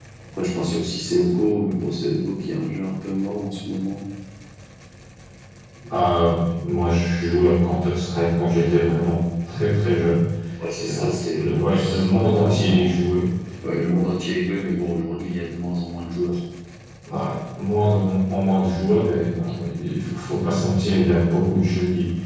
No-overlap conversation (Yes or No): No